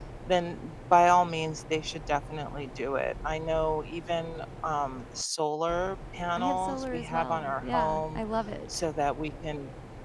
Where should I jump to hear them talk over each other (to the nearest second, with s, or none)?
6 s